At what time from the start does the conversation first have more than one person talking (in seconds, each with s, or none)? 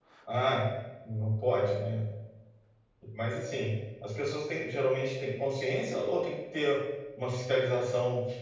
none